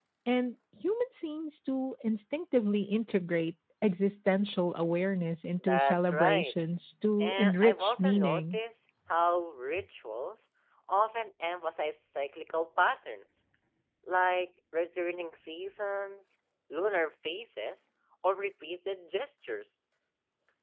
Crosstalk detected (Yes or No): Yes